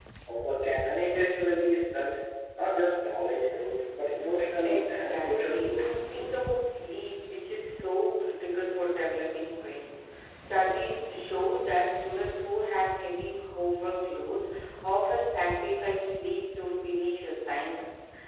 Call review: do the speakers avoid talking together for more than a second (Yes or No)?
No